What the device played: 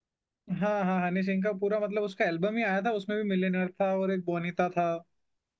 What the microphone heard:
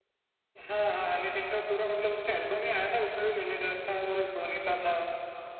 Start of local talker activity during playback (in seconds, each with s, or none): none